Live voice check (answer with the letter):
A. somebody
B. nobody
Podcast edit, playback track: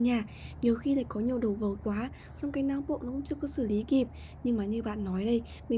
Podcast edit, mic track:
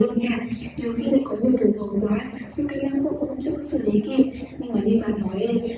B